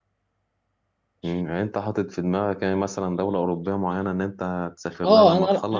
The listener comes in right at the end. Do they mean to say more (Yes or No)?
Yes